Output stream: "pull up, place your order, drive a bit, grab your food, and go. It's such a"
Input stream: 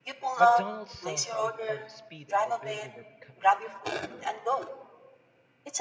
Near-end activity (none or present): present